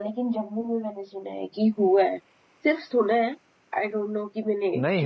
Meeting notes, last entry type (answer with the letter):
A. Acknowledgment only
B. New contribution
B